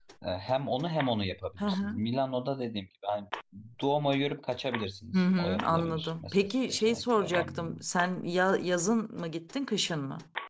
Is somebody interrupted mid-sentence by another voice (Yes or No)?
Yes